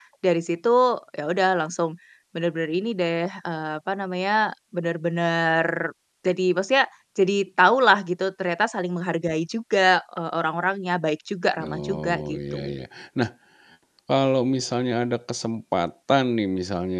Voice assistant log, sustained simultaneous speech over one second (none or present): present